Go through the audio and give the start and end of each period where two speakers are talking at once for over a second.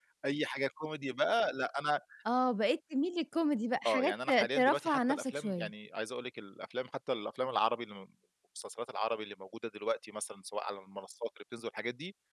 3.9-5.7

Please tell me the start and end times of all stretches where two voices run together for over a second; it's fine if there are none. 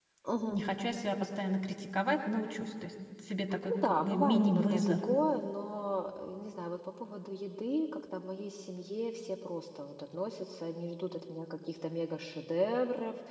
3.7-4.9

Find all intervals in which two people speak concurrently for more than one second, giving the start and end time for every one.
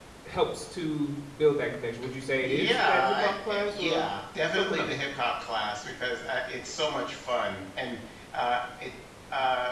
2.4-4.1

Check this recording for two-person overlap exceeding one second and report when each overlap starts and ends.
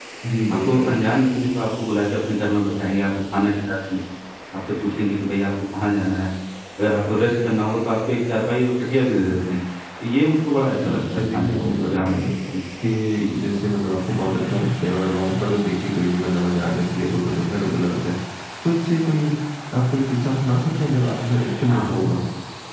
10.7-12.1

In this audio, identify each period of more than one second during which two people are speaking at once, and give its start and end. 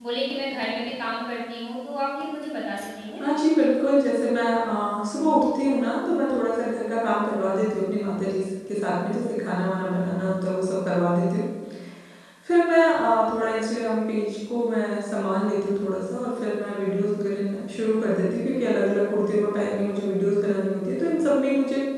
none

